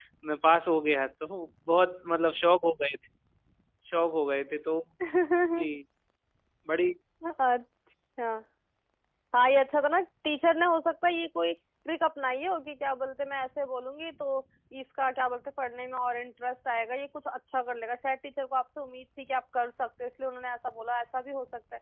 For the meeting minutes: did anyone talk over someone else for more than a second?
No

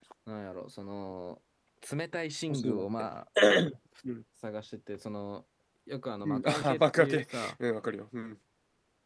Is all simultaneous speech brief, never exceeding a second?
No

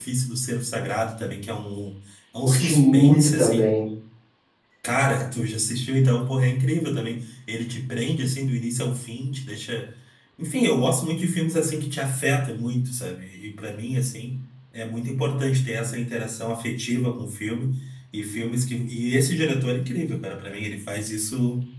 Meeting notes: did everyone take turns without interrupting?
No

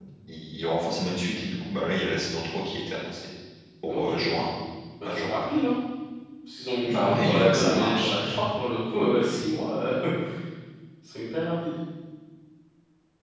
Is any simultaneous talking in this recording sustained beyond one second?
Yes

